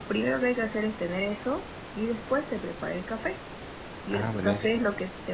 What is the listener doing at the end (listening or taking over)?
listening